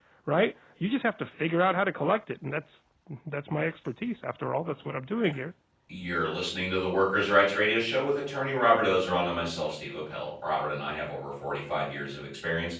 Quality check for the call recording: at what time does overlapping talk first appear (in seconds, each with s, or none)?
none